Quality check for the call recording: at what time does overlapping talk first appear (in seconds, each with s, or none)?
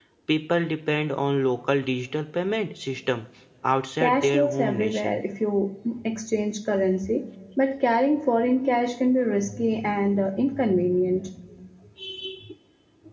4.0 s